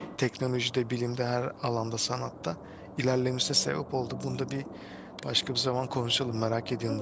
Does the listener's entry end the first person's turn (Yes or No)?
Yes